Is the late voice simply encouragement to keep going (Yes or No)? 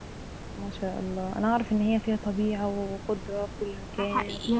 No